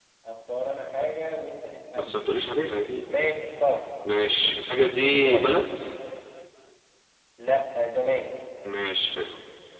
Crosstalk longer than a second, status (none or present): none